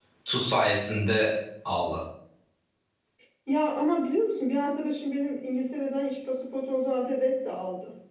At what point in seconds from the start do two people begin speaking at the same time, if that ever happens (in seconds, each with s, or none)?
none